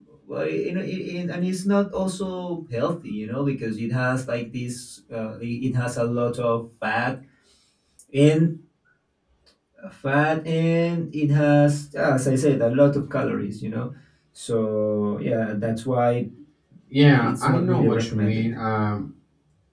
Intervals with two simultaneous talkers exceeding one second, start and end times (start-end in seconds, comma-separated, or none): 17.1-18.5